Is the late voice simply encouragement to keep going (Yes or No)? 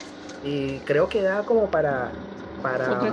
Yes